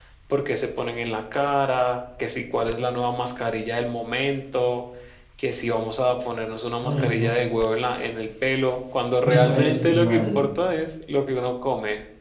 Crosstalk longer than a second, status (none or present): present